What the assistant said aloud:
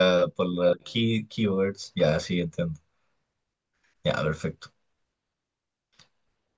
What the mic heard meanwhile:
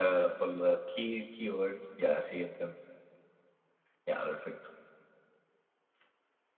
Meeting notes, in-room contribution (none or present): none